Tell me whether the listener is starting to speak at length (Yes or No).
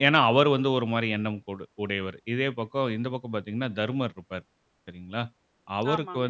No